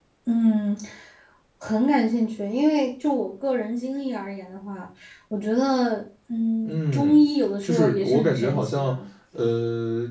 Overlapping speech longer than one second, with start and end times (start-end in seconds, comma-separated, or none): 7.6-8.9